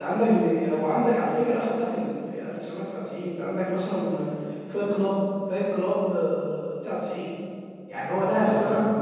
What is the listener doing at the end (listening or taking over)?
listening